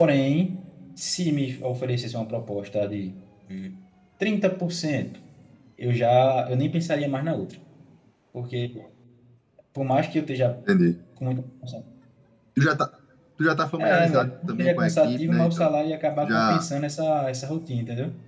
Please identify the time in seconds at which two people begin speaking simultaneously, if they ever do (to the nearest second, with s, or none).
14 s